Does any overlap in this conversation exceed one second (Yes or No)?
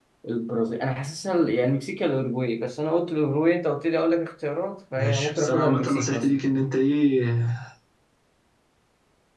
Yes